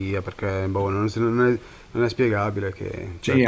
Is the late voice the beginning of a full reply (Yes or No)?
Yes